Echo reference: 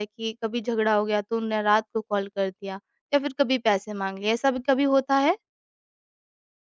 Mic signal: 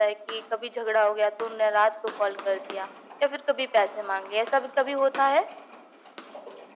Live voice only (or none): none